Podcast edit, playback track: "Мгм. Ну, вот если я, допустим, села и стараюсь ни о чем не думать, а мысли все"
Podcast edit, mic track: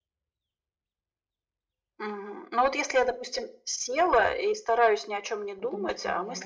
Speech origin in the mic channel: both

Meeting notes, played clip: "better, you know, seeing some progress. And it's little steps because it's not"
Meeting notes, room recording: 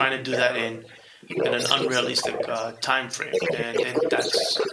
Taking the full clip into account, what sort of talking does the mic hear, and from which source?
both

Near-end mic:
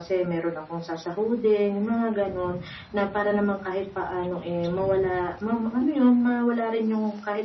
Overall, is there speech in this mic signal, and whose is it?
echo only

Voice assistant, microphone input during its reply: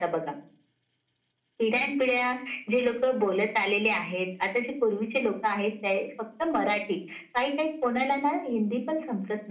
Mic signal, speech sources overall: echo only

